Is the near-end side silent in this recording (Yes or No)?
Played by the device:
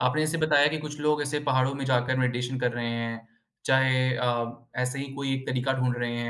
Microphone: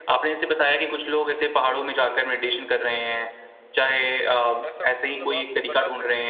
No